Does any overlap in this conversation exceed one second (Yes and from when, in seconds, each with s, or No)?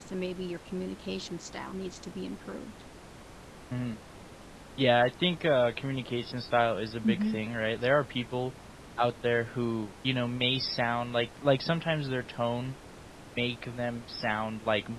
No